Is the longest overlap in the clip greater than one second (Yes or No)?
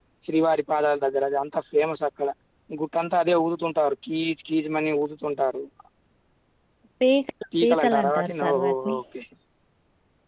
Yes